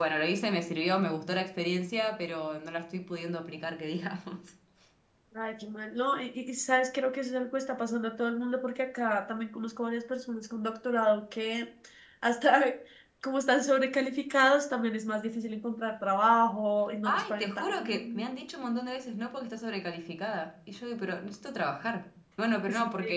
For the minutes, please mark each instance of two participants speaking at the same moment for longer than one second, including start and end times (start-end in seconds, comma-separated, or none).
17.1-18.3